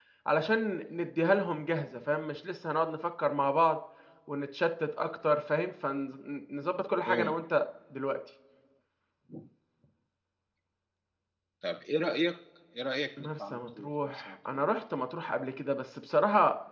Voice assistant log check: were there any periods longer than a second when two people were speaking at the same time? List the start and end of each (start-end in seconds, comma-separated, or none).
13.2-14.6